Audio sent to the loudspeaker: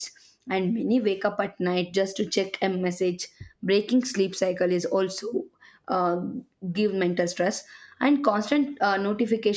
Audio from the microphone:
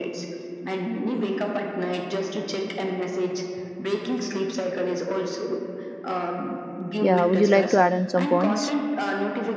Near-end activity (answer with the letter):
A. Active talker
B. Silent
A